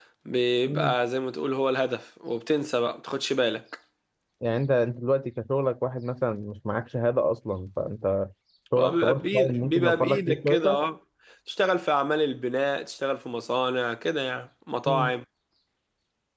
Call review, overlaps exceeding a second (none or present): present